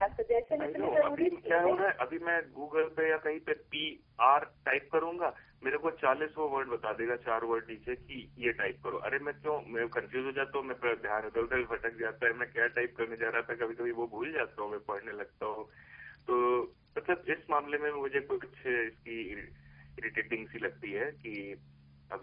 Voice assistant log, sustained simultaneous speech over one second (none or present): present